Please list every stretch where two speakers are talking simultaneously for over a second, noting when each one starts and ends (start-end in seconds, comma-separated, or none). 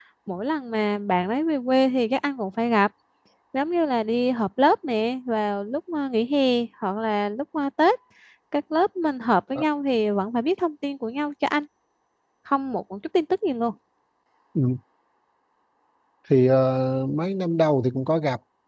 none